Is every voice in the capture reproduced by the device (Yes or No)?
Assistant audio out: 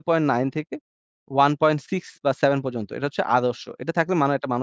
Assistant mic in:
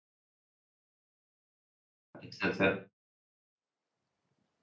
No